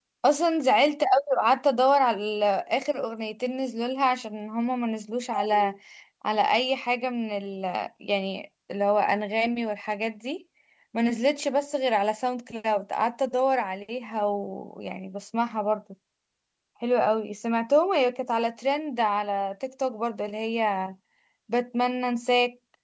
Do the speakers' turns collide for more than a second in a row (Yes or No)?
No